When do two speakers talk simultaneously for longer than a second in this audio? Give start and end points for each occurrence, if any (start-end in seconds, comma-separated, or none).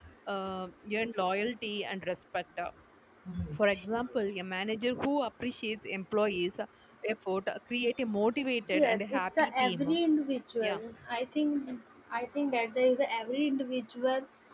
8.7-10.0